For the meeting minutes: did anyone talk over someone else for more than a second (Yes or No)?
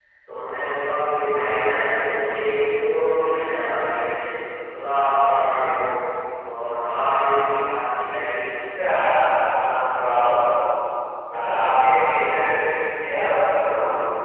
No